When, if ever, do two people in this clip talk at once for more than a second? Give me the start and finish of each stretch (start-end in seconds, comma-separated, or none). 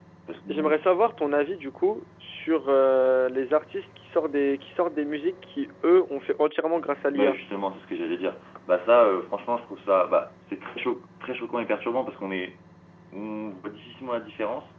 none